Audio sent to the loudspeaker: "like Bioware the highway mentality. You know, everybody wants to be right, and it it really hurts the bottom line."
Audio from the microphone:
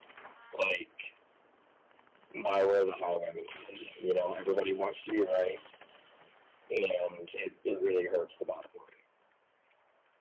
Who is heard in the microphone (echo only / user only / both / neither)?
echo only